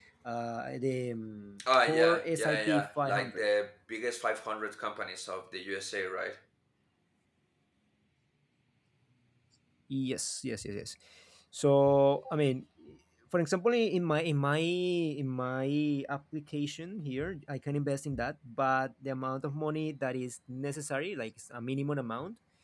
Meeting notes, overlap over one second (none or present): present